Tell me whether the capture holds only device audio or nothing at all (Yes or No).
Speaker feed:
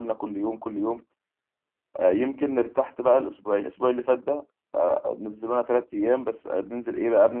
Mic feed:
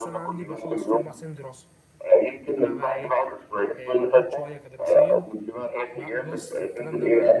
No